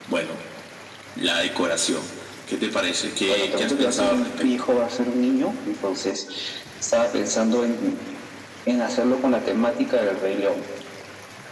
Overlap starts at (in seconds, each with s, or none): 3.3 s